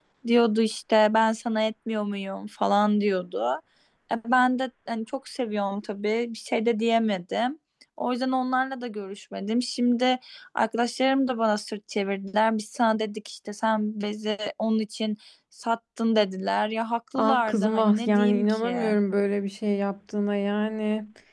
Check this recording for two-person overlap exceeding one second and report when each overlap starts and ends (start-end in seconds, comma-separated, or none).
17.1-18.7